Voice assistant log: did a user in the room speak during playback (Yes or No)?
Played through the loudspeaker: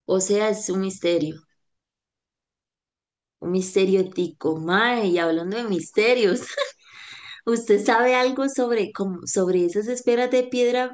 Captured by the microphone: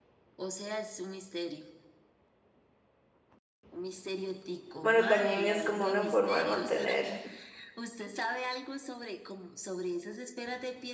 Yes